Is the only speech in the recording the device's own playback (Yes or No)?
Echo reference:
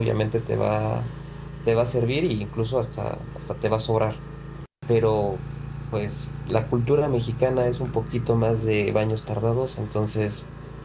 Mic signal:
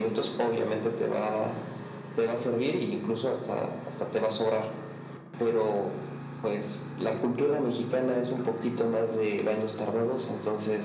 Yes